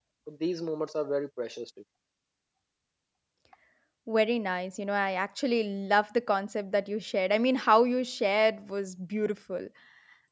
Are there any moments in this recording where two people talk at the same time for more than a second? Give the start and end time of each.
none

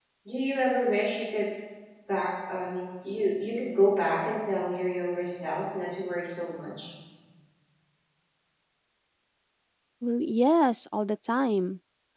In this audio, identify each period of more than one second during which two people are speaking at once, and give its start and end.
none

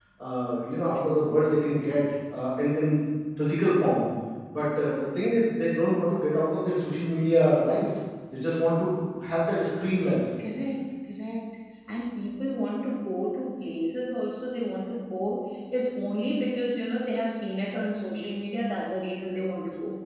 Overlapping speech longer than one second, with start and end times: none

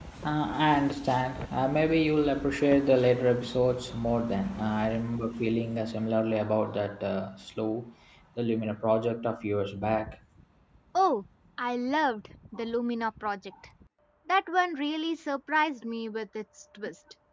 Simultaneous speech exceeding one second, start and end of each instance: none

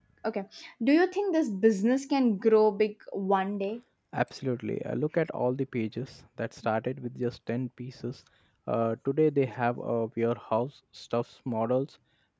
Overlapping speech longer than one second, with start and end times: none

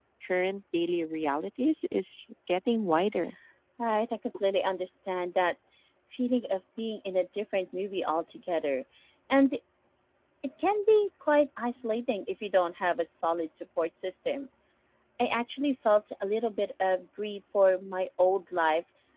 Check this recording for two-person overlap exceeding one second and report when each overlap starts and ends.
none

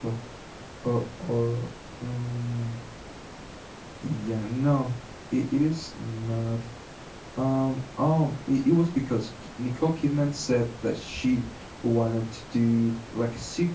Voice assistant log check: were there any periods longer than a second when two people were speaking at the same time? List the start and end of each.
none

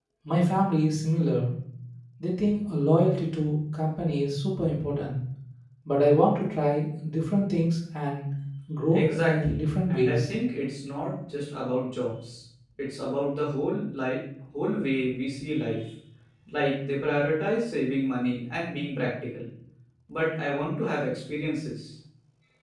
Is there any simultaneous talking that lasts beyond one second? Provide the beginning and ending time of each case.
8.9-10.3

